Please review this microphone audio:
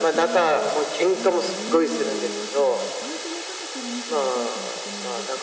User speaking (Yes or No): Yes